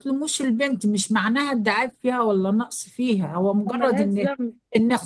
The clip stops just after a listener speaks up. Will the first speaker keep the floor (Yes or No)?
Yes